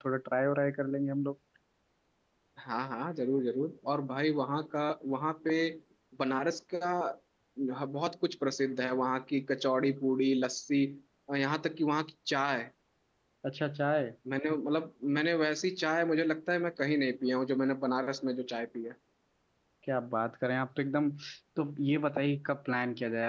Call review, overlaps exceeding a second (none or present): none